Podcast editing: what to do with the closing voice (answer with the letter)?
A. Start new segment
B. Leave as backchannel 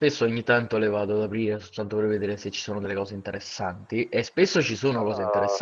B